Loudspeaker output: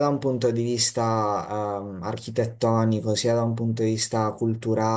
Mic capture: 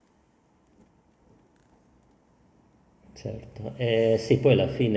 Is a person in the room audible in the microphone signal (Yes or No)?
Yes